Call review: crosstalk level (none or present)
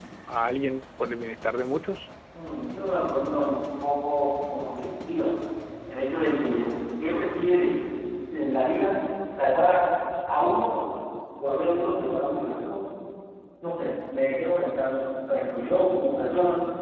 none